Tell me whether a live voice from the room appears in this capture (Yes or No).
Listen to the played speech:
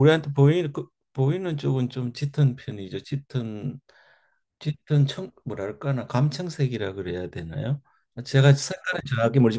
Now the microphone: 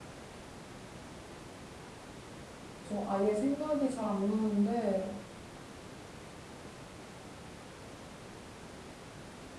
Yes